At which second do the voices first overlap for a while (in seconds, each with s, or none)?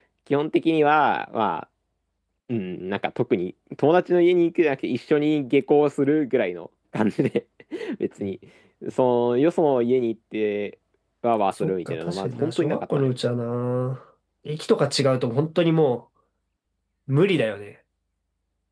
11.6 s